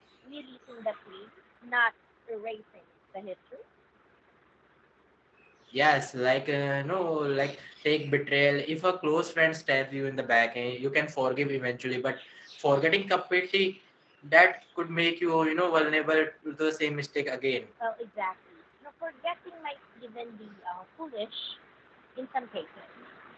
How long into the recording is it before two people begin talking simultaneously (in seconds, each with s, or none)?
none